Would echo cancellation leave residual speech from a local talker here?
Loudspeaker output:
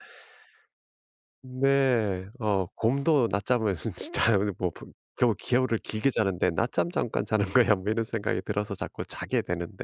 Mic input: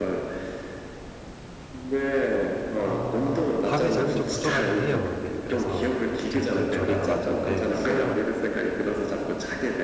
Yes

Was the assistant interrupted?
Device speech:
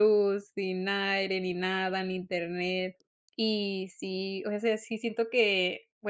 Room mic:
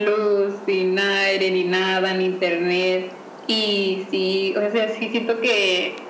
No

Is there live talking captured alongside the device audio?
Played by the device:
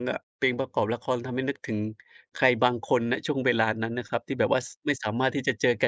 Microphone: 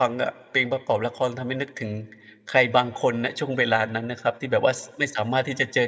No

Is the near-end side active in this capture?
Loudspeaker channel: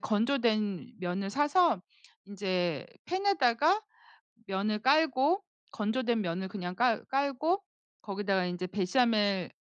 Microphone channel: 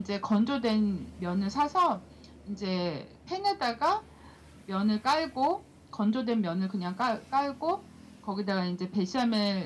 No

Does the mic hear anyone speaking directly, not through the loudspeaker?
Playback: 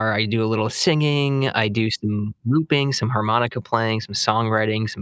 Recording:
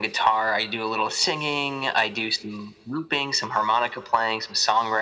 No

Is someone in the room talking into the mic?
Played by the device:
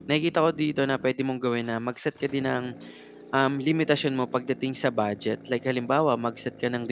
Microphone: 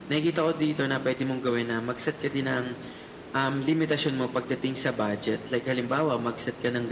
No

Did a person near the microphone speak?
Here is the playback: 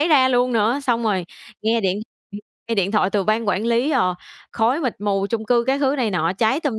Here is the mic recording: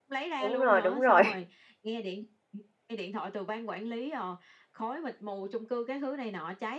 Yes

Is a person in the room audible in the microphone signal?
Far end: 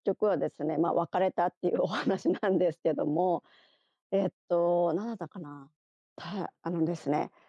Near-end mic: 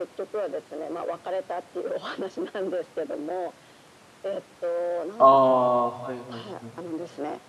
Yes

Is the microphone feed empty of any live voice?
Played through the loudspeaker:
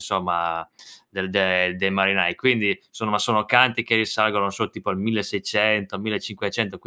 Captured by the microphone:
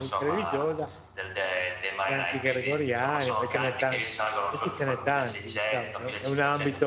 No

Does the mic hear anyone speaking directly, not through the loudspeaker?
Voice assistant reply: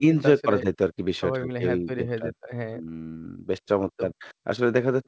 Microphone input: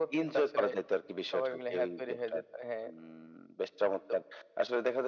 No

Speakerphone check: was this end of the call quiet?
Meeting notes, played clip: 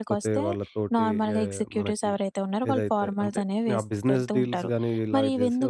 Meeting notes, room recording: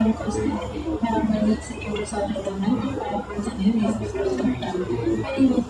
Yes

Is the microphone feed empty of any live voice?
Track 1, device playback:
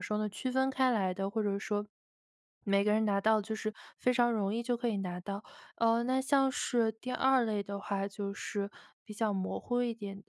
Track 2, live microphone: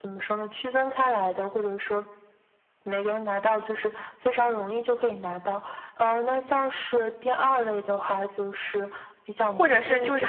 No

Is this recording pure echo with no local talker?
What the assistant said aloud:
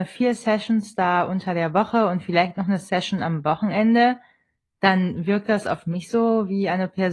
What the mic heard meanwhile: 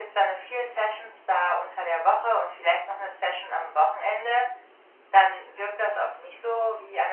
Yes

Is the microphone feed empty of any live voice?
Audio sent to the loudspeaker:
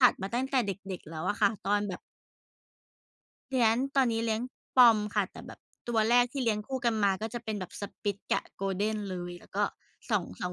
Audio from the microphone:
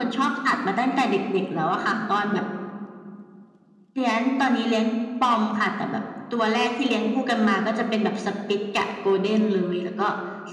Yes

